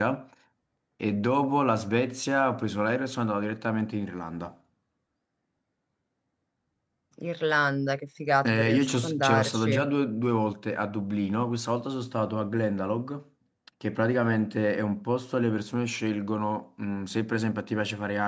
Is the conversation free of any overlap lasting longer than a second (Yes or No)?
No